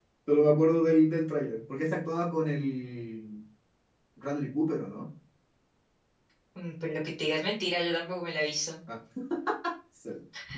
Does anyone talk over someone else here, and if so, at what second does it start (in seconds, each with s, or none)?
none